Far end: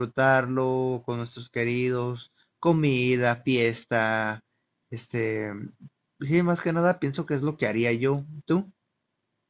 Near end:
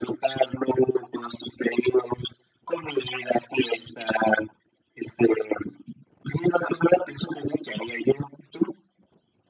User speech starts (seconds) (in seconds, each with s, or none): none